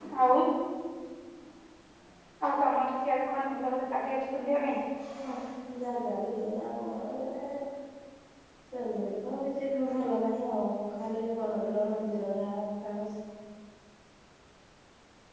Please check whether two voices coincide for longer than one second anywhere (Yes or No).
No